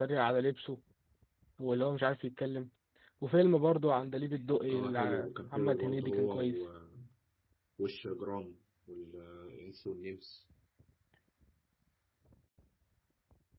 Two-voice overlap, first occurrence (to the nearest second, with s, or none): 5 s